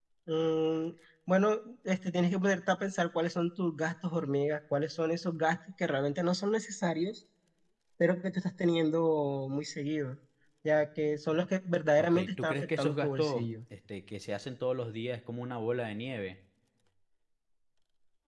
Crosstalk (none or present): present